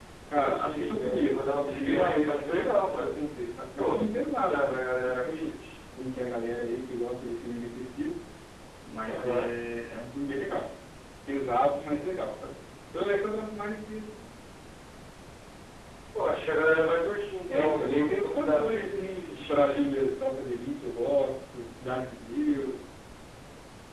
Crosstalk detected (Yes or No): Yes